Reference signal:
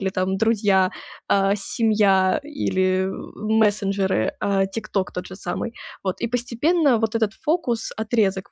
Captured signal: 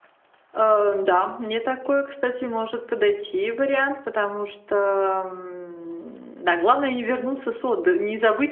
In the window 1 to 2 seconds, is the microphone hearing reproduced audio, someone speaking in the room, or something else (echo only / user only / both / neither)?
user only